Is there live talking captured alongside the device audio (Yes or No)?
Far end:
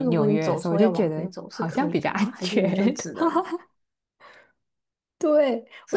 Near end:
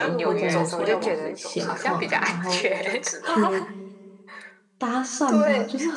Yes